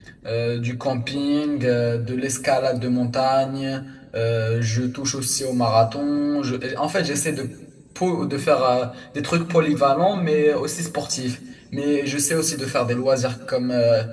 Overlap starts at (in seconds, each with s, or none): none